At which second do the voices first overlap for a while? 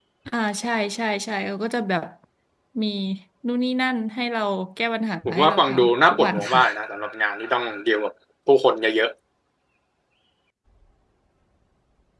5.2 s

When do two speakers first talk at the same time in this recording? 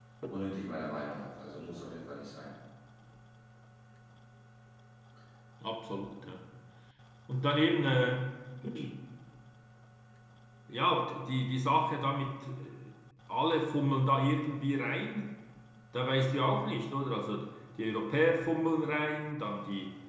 none

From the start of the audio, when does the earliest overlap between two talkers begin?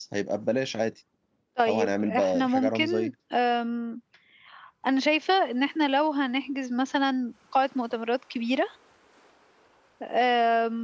1.7 s

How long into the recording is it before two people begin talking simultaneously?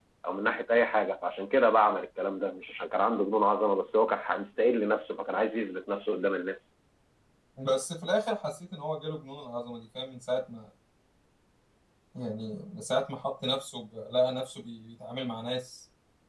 none

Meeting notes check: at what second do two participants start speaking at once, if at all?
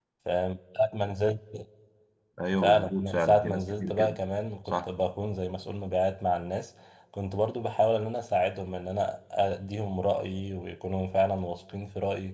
2.6 s

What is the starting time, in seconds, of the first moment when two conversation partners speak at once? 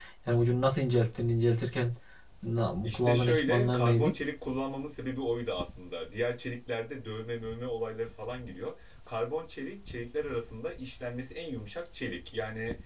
2.8 s

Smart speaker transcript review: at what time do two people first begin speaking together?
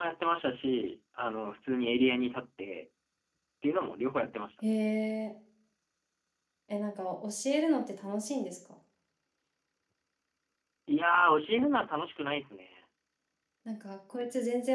none

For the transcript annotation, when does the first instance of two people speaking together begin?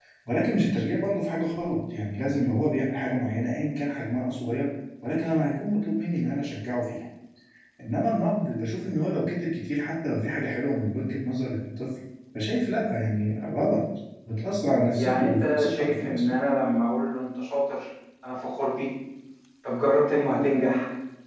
14.9 s

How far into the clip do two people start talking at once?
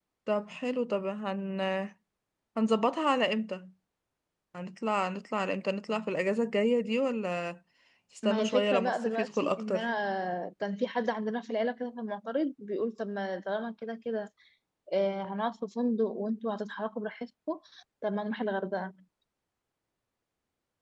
8.2 s

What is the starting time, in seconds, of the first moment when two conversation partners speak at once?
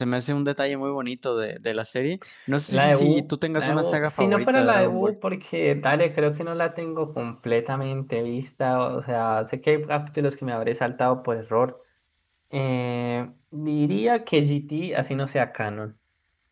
2.7 s

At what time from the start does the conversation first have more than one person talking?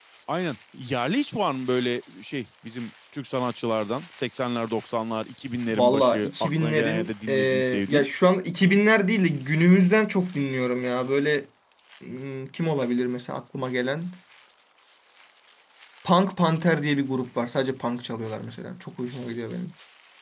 5.7 s

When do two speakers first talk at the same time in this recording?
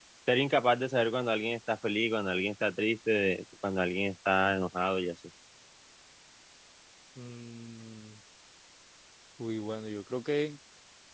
none

